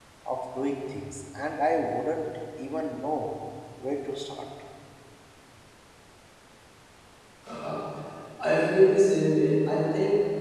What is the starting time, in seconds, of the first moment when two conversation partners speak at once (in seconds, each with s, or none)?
none